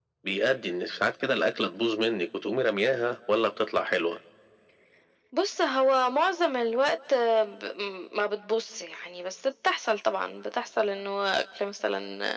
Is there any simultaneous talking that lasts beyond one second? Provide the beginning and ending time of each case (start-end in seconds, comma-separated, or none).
none